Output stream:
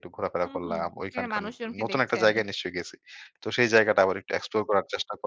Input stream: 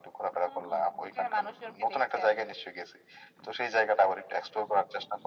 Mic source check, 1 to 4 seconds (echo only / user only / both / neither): echo only